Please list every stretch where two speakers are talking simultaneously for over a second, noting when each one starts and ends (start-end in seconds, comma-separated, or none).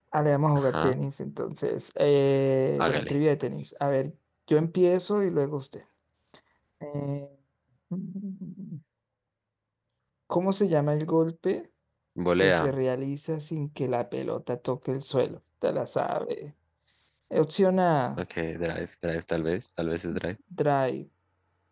none